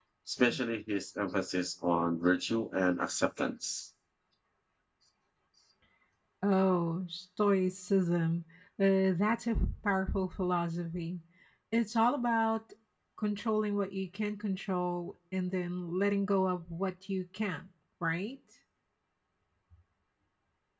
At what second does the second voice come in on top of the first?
none

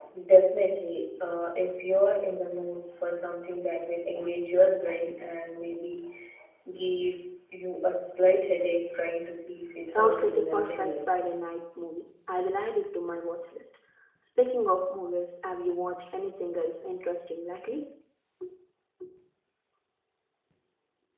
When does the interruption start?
10 s

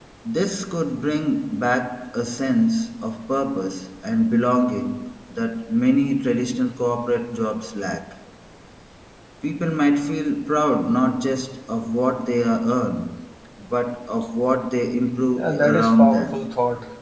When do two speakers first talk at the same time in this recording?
15 s

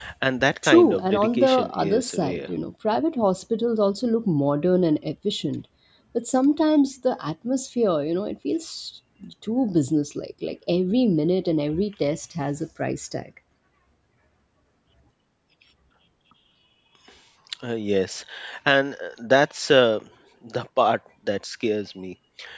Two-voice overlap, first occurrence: 1 s

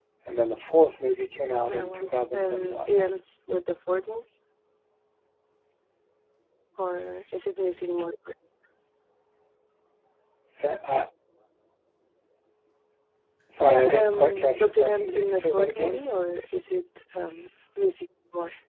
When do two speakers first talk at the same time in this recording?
2 s

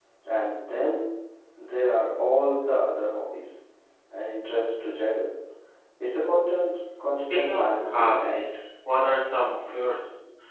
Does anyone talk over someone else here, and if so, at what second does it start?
7 s

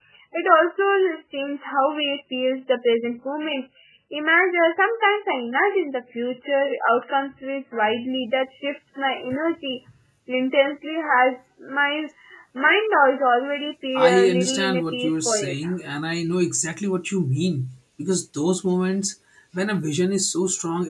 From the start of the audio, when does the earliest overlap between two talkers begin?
14 s

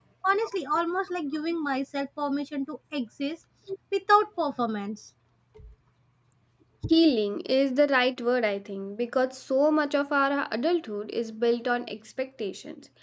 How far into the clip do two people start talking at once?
none

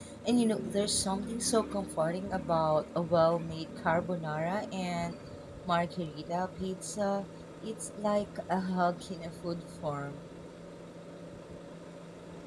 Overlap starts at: none

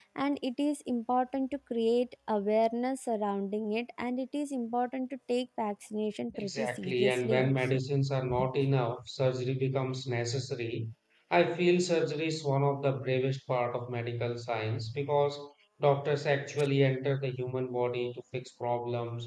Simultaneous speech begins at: 6 s

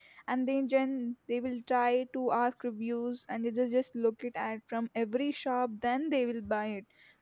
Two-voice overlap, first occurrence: none

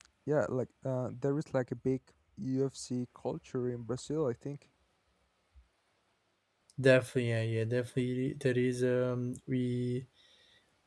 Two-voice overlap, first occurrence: none

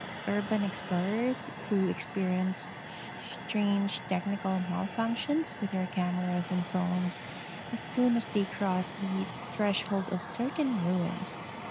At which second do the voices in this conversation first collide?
none

